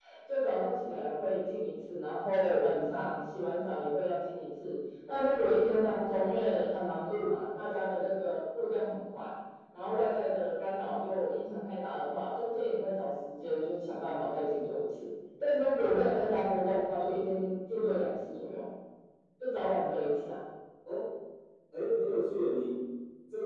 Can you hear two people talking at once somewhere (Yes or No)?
No